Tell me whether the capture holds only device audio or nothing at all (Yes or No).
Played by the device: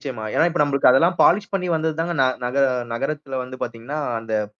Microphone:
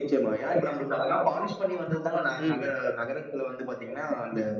No